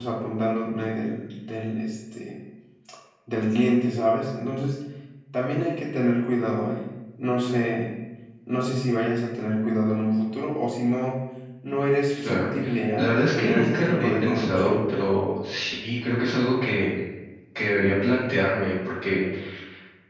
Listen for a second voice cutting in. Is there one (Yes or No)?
Yes